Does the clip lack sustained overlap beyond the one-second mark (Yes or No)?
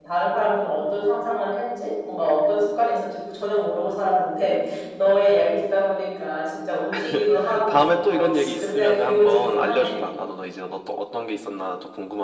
No